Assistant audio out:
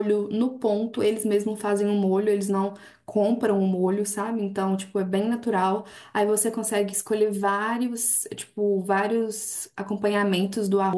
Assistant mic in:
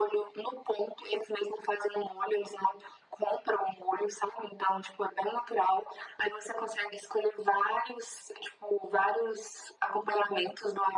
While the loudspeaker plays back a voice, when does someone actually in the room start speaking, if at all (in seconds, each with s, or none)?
none